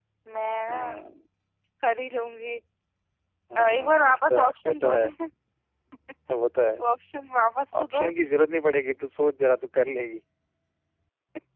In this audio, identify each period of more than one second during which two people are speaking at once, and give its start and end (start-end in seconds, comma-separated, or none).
3.5-5.1